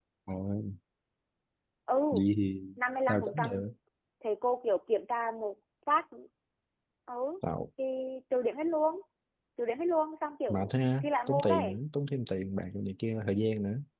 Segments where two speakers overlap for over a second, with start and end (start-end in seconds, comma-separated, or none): 10.5-11.8